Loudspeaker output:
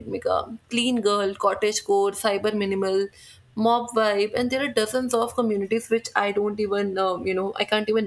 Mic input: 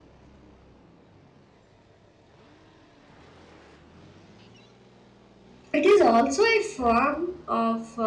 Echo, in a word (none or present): none